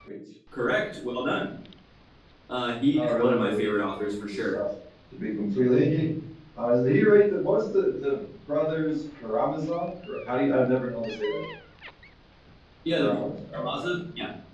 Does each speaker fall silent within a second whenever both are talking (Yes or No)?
No